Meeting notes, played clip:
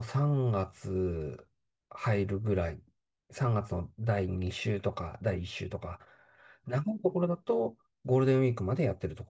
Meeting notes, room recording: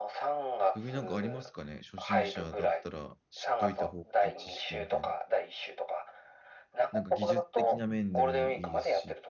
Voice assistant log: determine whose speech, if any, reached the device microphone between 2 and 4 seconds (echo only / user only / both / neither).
both